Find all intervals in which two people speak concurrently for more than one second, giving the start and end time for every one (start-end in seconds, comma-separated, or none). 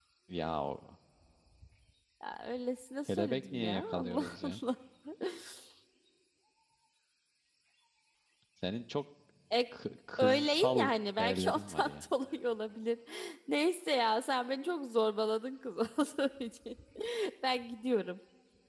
3.1-4.6, 10.2-12.1